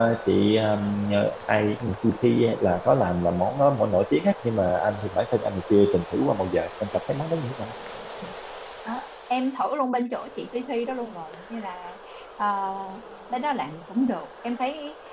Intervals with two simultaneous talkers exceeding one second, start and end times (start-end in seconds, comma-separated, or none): none